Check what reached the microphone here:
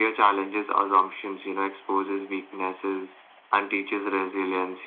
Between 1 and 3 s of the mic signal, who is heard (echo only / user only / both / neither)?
echo only